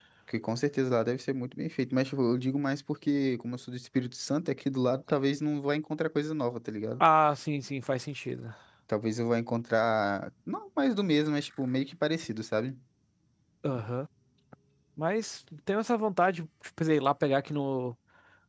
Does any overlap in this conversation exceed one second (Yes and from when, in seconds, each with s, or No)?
No